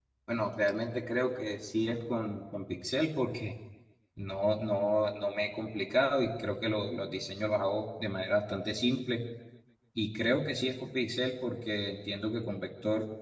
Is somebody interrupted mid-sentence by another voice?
No

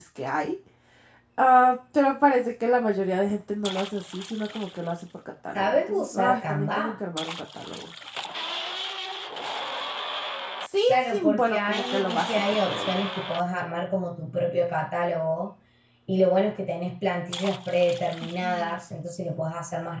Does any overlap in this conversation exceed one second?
Yes, from 5.5 s

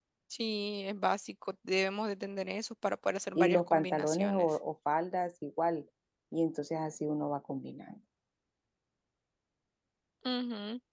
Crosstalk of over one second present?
Yes, from 3.4 s

